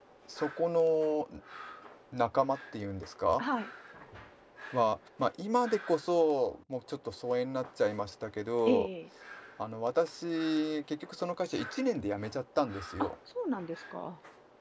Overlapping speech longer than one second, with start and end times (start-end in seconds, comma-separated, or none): none